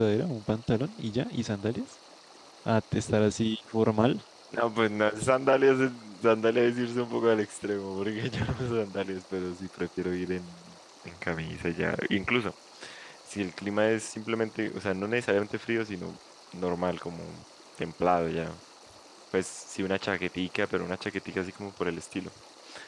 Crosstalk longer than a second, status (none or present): none